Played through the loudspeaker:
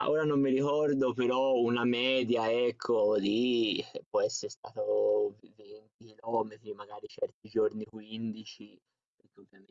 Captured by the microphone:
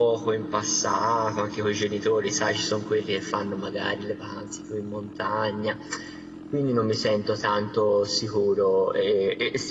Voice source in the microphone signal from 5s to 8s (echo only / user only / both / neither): user only